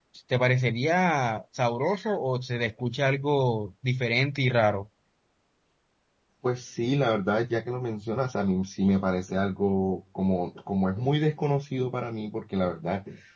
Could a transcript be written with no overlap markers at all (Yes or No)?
Yes